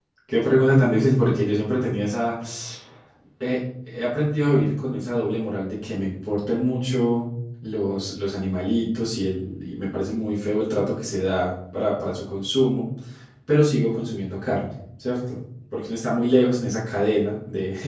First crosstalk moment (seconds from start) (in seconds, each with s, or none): none